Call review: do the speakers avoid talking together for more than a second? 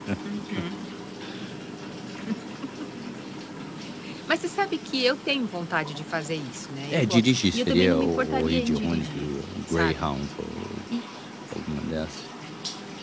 No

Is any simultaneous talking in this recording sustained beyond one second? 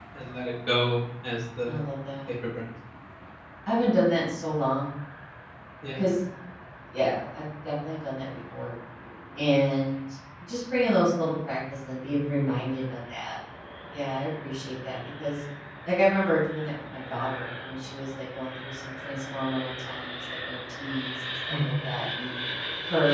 No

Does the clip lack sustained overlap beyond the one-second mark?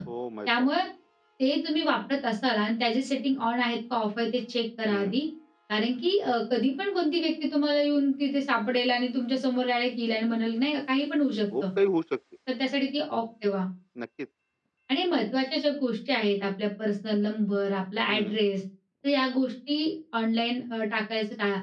Yes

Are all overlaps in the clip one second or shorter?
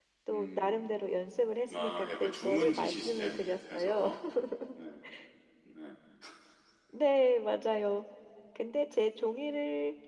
No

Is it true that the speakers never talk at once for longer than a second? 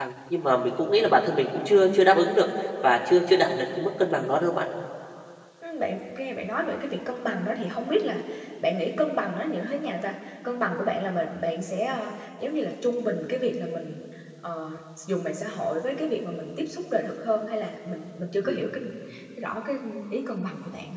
Yes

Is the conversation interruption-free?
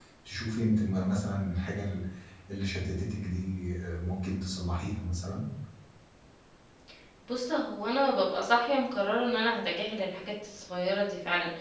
Yes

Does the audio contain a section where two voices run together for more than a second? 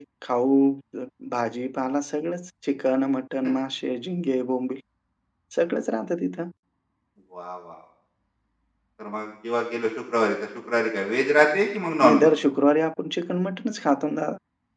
No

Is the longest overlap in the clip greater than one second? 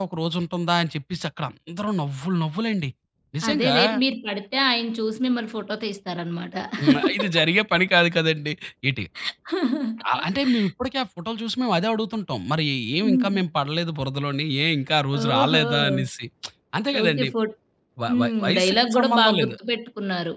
Yes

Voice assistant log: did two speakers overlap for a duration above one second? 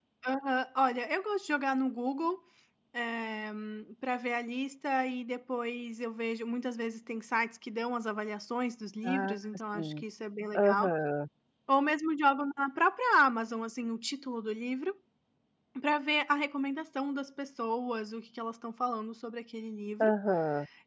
No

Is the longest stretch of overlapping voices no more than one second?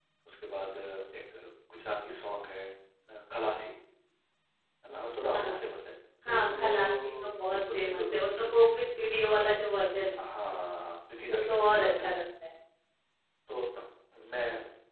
No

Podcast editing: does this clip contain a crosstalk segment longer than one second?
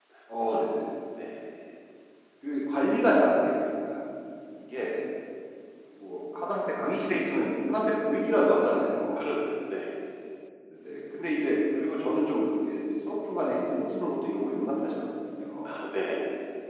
No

